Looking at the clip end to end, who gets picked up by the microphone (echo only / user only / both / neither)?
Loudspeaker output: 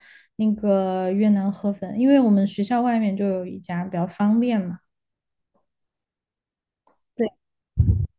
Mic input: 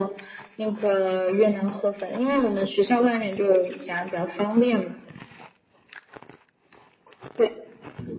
echo only